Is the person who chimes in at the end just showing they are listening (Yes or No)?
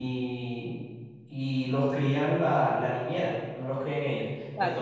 Yes